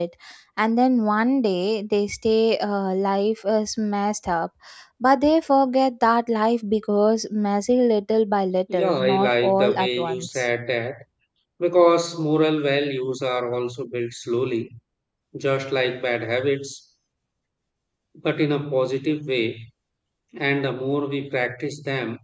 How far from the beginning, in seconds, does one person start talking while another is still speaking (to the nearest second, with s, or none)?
9 s